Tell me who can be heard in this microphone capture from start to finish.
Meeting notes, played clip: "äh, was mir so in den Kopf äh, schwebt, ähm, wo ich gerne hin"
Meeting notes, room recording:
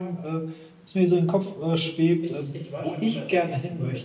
both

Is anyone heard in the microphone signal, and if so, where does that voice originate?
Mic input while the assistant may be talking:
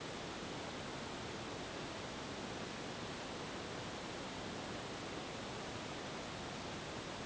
neither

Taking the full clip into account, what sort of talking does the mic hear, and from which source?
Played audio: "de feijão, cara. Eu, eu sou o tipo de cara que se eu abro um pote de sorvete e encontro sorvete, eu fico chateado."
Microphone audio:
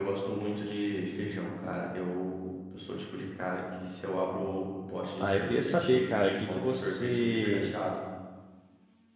both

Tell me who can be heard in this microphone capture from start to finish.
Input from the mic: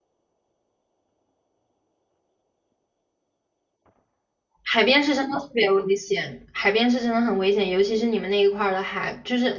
user only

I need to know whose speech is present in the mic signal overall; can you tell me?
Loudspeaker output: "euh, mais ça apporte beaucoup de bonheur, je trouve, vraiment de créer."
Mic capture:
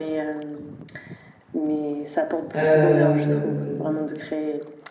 both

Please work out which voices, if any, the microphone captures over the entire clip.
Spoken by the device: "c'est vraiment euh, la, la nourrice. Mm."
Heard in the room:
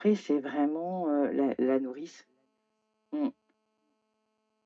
echo only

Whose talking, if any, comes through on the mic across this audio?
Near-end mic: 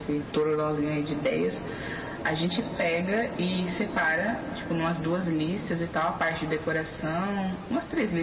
echo only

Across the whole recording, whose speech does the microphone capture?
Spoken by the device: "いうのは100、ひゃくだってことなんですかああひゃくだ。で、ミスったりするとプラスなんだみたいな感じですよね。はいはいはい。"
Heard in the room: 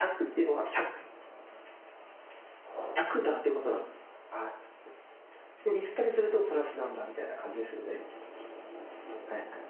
echo only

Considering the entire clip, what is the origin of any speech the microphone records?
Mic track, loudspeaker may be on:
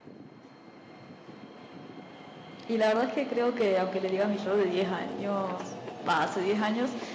user only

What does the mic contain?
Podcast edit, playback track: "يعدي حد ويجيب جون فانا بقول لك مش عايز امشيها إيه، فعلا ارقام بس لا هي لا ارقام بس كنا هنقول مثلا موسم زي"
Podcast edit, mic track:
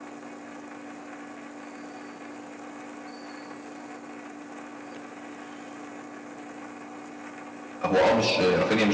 user only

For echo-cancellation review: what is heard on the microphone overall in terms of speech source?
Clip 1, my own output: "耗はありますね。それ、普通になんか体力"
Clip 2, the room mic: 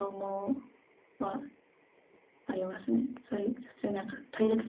echo only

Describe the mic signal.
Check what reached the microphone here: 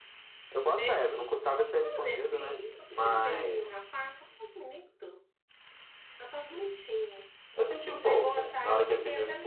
both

